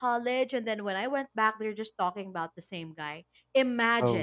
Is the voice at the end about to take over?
No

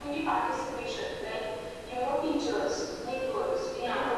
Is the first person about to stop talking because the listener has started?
No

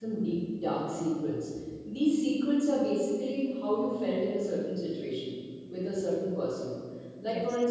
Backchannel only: Yes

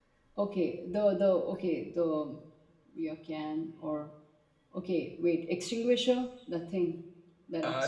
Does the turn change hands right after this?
Yes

